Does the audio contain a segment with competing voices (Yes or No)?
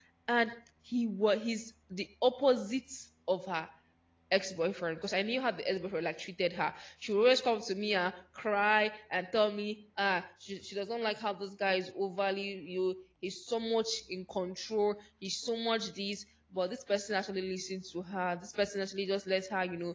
No